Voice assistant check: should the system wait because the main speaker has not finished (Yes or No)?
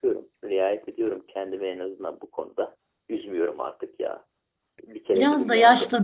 No